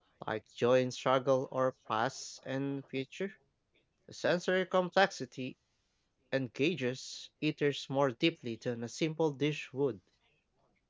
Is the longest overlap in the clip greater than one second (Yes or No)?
No